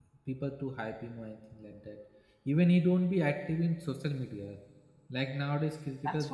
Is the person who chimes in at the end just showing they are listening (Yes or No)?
No